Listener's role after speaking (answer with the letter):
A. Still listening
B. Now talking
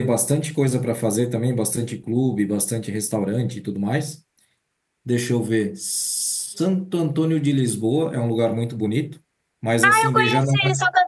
B